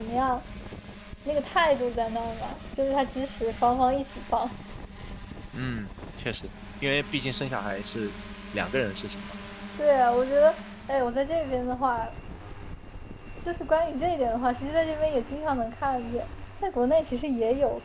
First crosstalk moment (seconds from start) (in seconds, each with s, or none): none